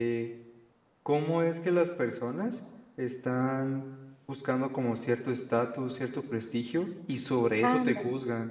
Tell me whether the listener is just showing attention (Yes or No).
Yes